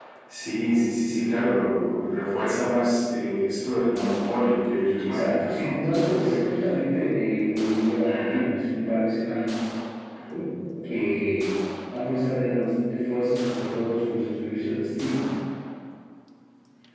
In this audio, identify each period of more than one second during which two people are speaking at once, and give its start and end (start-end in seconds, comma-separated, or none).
5.0-6.3